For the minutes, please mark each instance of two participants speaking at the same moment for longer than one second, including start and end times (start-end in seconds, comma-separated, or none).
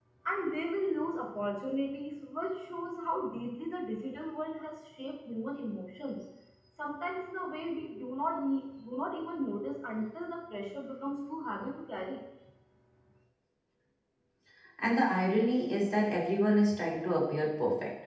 none